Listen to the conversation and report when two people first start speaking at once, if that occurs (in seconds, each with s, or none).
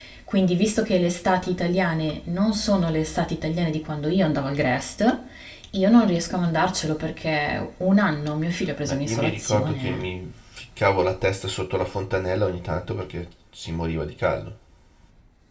8.9 s